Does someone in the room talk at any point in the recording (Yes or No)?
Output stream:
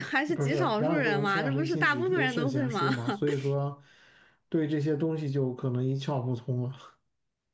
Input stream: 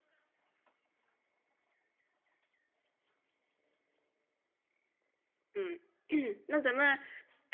Yes